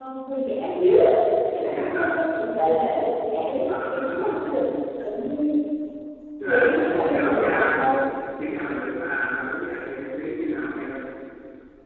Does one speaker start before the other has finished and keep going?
Yes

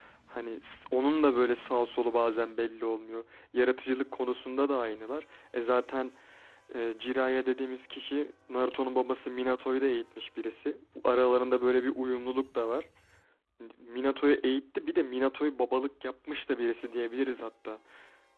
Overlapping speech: No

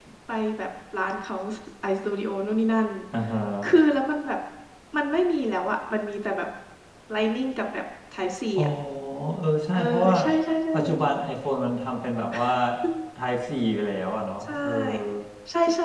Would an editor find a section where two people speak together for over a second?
No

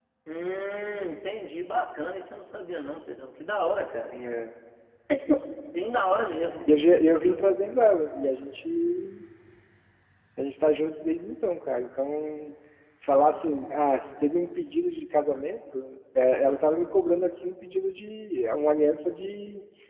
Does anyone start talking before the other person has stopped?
No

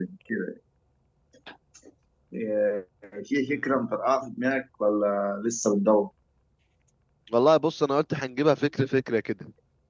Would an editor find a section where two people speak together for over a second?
No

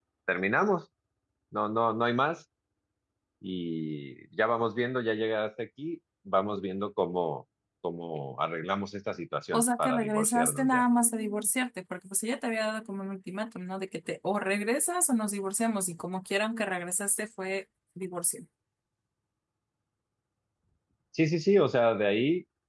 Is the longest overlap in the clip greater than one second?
Yes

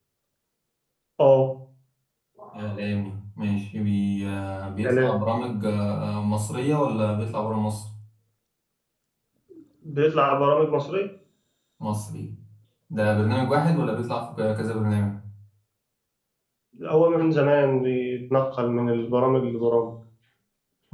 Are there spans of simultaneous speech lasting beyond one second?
No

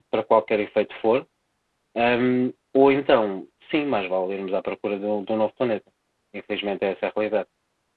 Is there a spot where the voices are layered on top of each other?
No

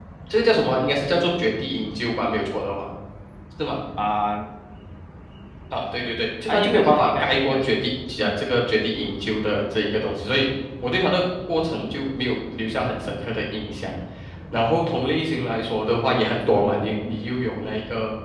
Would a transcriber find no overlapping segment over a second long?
No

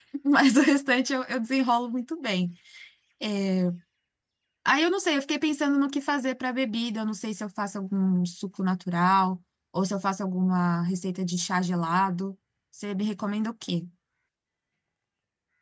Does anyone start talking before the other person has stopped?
No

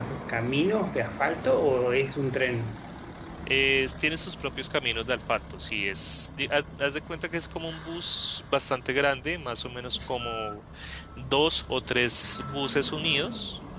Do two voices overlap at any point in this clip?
No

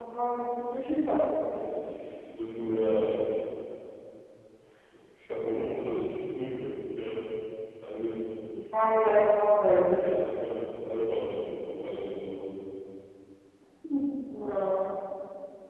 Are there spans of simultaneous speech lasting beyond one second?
No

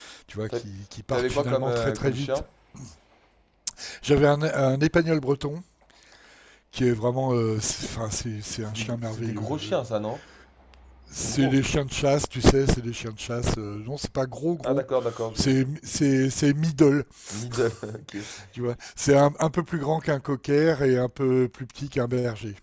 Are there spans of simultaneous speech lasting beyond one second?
Yes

